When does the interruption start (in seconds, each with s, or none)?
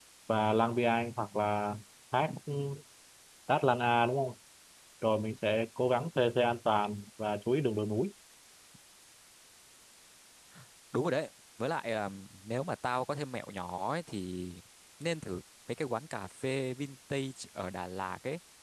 none